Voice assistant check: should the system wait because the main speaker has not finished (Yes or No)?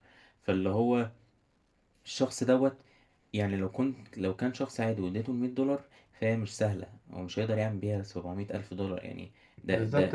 No